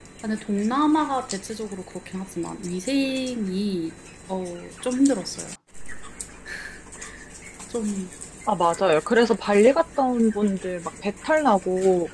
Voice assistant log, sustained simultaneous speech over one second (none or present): none